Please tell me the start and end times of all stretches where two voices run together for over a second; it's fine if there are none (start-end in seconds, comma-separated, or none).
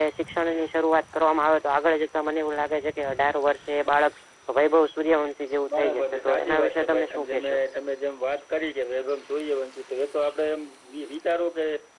5.8-7.6